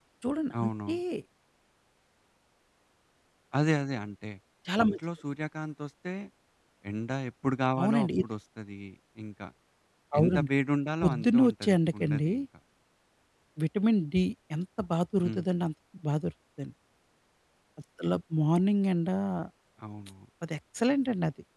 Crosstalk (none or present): present